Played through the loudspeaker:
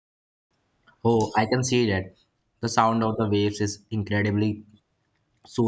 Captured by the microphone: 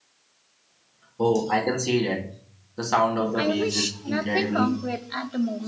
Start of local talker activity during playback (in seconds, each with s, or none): 3.4 s